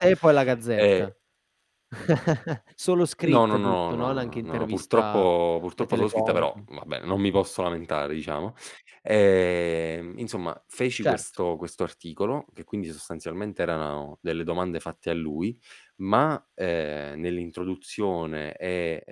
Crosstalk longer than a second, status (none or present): present